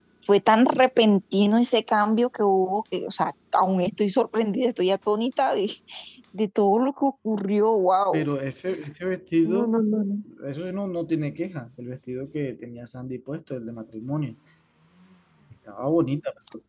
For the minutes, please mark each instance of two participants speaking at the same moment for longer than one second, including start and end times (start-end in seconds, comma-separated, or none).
none